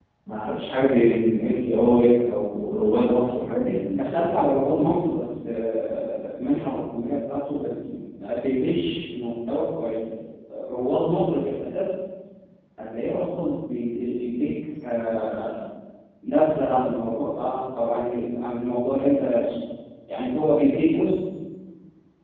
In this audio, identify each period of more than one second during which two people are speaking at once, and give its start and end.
none

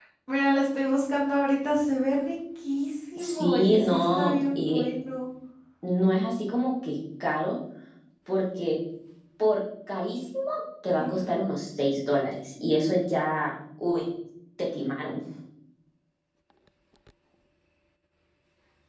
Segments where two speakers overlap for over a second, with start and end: 3.2-4.8

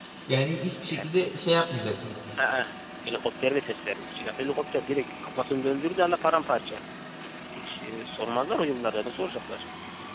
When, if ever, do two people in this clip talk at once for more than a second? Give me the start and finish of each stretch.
none

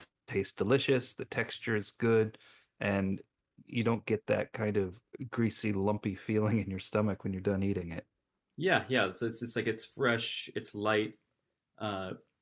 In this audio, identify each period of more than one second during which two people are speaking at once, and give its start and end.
none

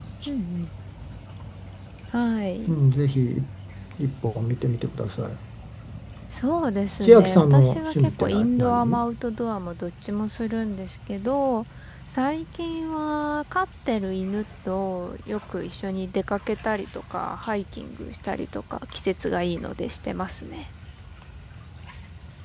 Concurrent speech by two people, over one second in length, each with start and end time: 7.0-9.0

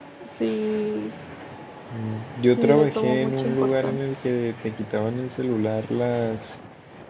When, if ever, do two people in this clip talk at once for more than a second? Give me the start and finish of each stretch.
2.6-4.0

